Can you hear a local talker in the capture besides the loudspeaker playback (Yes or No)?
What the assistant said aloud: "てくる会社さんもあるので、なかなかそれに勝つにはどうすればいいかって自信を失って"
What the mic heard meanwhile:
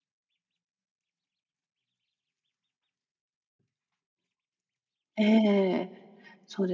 Yes